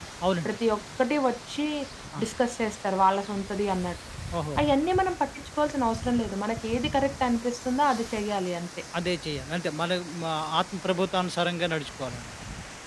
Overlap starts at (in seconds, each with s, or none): none